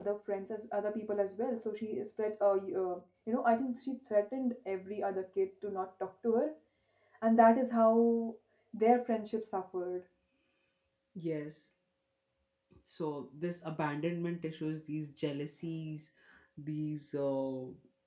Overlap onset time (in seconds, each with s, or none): none